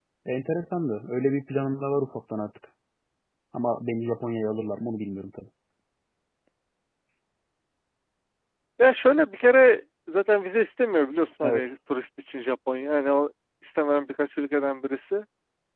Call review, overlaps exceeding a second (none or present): none